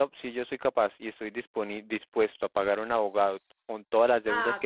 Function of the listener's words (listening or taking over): taking over